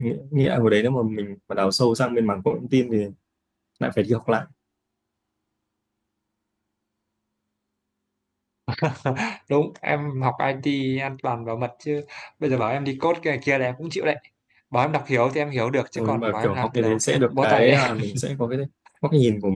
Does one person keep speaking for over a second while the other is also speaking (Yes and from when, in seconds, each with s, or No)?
Yes, from 15.9 s